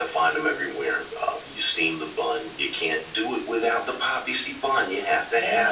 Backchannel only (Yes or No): No